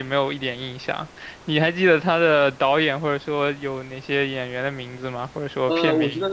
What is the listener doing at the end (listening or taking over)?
taking over